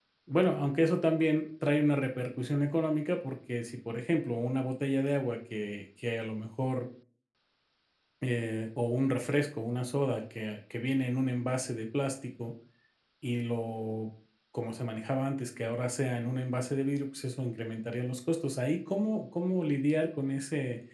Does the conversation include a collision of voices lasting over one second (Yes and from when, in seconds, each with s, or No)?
No